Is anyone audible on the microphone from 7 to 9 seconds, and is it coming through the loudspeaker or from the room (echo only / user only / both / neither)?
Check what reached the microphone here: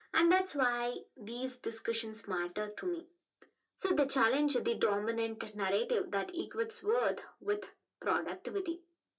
echo only